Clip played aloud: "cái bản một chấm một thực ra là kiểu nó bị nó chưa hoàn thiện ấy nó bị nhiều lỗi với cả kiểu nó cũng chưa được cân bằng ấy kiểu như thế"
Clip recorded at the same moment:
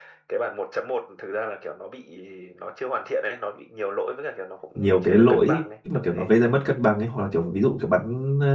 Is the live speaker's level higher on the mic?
Yes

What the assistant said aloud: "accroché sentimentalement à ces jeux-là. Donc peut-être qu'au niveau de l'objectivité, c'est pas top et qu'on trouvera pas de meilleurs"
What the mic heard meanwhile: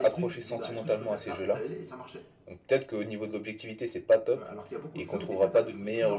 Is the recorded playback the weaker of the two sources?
No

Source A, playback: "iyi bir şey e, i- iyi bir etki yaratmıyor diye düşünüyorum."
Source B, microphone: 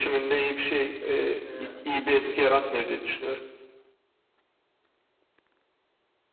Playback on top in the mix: Yes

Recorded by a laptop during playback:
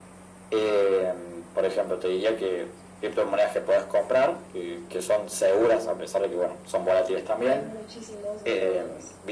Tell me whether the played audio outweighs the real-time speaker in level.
Yes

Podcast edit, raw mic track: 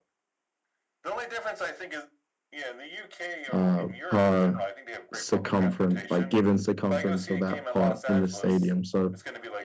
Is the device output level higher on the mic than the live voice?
No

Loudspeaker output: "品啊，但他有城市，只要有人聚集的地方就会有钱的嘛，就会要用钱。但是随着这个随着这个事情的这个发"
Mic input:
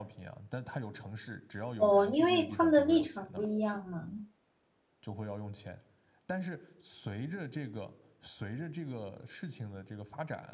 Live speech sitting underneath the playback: No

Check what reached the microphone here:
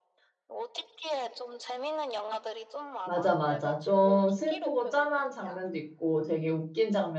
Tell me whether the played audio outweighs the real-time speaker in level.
No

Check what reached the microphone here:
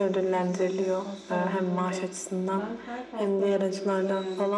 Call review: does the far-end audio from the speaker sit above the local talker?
Yes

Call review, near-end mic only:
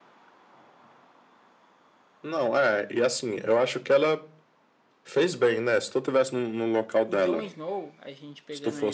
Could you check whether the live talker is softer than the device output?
Yes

